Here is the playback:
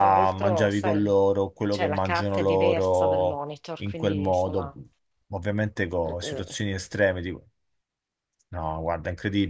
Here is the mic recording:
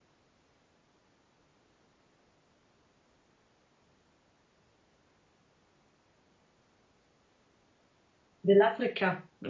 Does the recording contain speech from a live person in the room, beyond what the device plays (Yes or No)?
Yes